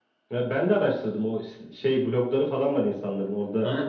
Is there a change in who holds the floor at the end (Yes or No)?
Yes